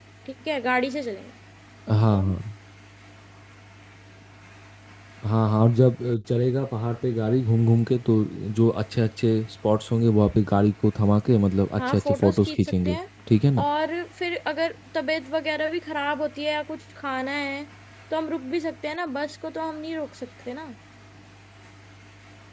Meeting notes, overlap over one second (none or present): present